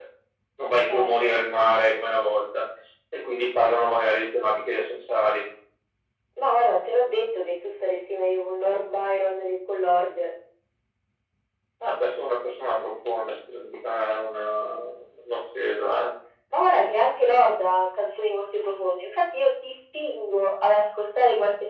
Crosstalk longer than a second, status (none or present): none